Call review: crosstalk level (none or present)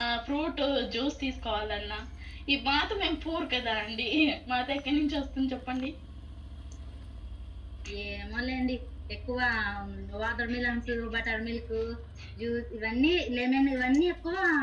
none